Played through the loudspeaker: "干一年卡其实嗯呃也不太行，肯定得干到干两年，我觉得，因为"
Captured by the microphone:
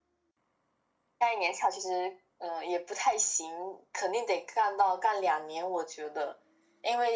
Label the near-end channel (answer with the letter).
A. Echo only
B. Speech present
A